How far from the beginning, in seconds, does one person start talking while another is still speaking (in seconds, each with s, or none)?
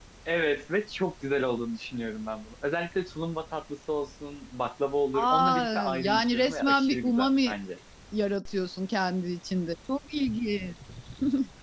5.1 s